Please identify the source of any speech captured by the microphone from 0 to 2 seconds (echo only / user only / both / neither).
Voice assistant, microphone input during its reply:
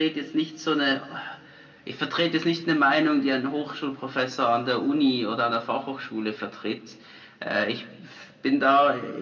echo only